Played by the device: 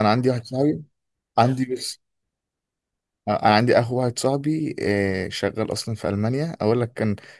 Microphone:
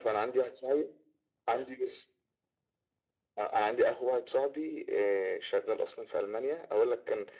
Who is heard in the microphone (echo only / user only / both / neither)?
echo only